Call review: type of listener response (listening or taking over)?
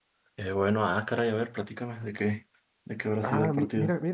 taking over